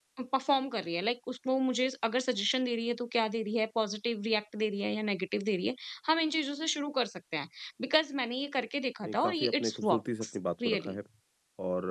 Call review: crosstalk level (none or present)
present